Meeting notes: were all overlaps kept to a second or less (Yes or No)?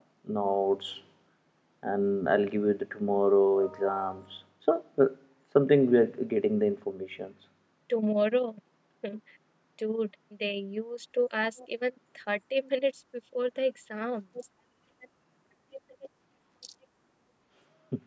Yes